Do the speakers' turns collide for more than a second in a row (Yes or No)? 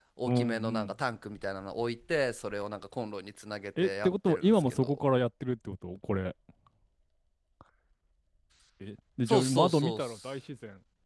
Yes